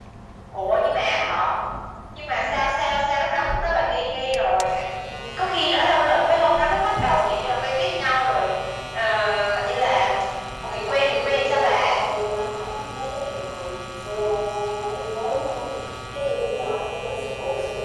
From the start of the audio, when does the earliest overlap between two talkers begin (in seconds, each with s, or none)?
10.6 s